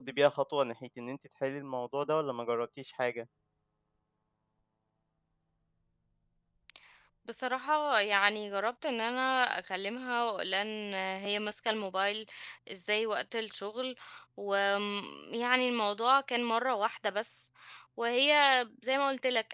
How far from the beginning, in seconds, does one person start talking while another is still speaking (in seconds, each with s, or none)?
none